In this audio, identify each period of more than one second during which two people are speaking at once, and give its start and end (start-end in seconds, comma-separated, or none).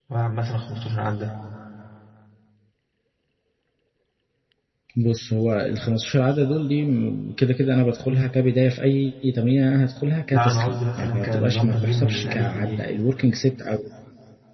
10.3-12.8